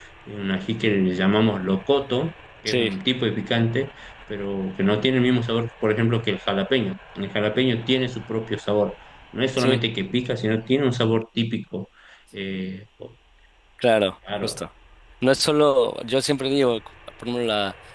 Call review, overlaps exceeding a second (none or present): none